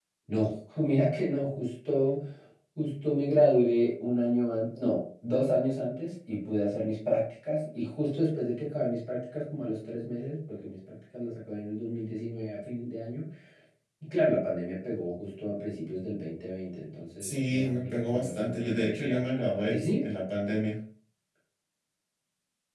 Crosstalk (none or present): present